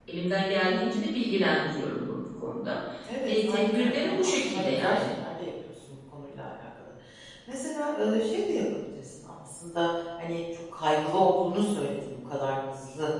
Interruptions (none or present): present